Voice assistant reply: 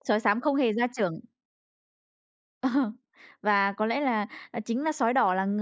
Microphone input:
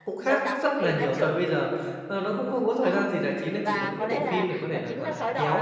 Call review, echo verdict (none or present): present